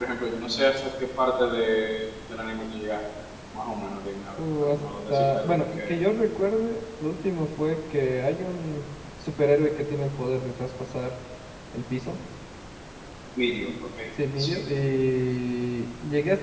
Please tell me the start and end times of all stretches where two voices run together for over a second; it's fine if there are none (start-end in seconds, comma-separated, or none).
4.3-5.9